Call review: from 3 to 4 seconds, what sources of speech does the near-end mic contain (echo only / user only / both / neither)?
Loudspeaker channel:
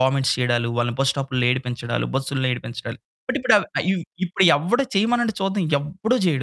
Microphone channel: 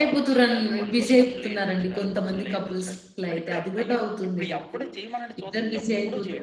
both